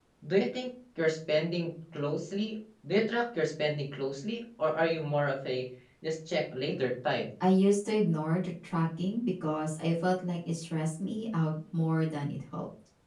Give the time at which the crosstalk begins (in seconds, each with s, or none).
none